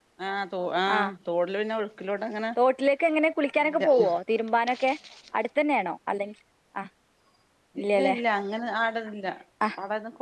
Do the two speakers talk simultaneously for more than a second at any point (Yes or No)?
No